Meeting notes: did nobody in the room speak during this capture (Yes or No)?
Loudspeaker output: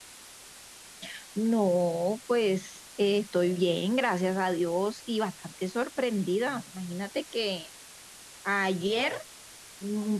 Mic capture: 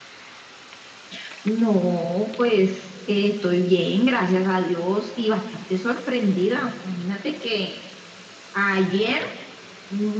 Yes